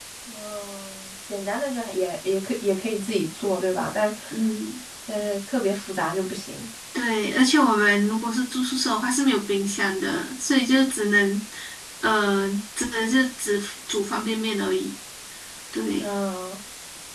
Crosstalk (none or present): none